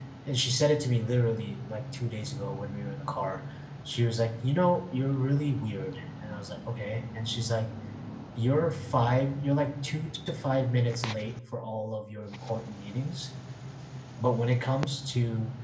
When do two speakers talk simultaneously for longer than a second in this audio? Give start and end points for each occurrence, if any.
none

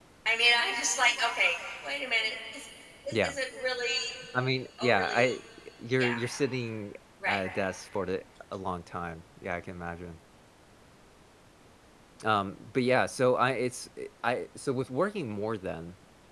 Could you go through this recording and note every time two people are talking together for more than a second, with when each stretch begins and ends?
none

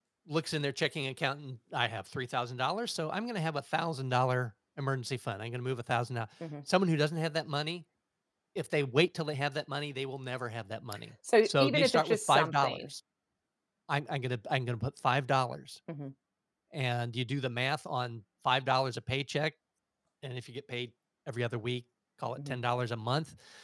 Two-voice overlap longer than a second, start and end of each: 11.4-12.9

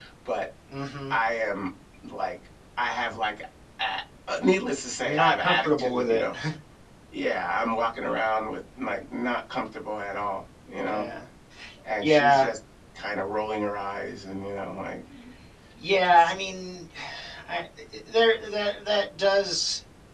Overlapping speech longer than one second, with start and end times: 5.0-6.2

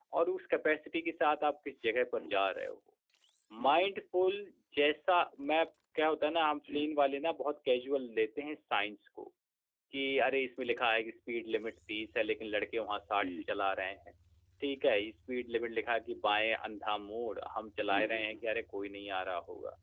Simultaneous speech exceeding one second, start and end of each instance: none

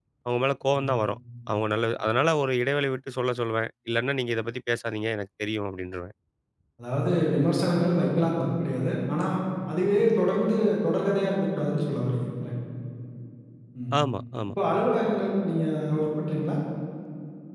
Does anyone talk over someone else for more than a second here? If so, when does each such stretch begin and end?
none

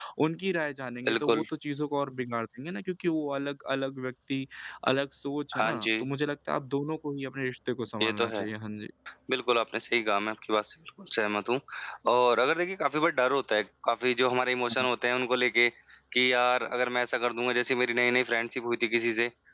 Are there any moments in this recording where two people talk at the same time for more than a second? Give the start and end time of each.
none

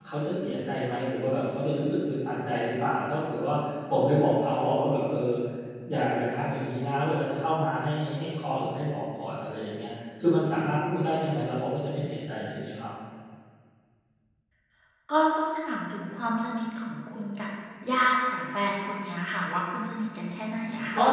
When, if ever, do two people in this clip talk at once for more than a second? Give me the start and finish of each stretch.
none

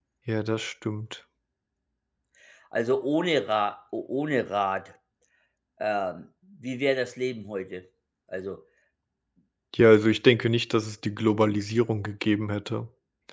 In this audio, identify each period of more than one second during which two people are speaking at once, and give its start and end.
none

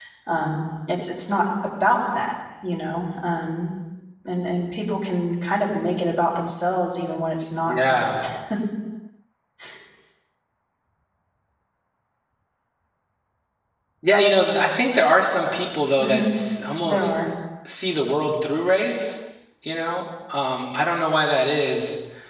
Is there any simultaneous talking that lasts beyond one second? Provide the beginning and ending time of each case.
none

